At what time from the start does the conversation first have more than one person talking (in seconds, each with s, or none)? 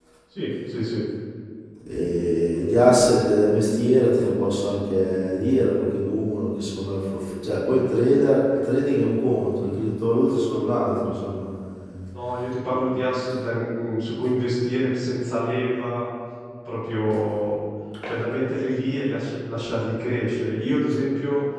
none